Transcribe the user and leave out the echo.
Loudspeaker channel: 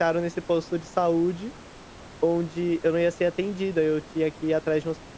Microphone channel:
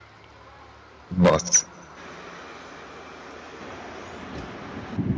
Nossa,

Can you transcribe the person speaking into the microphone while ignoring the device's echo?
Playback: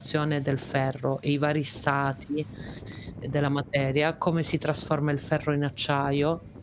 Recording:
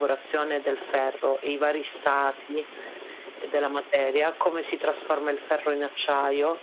none

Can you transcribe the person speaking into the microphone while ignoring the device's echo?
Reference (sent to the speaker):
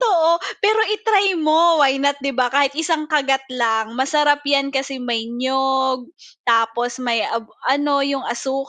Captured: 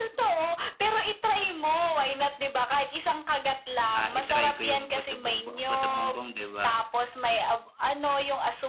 ah, i-try ko 'yong puto bumbong puto bumbong 'di ba?

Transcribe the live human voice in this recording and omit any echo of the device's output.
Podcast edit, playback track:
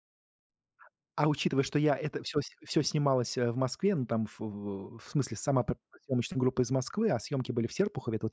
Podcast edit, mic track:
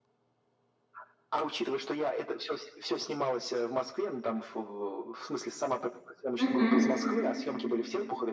Мгм.

